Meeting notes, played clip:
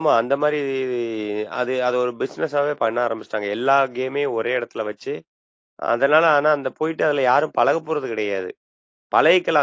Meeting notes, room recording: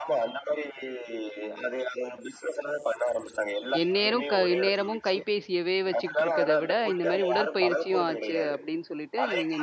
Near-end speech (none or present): present